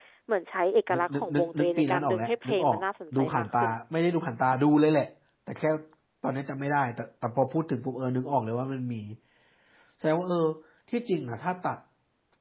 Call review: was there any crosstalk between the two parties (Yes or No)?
Yes